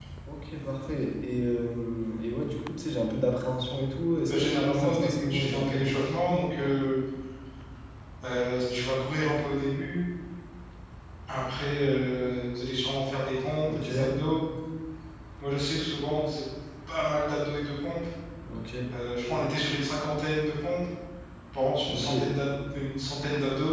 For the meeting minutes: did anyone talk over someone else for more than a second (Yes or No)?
Yes